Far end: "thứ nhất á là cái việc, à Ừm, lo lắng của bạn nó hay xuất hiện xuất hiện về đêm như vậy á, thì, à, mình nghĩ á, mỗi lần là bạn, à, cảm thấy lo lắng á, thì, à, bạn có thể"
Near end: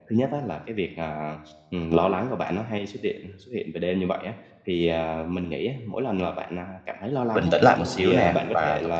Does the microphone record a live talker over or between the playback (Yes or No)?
Yes